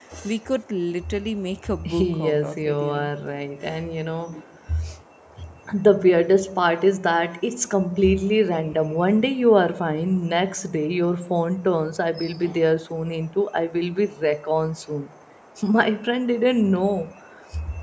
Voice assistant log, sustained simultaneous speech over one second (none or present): present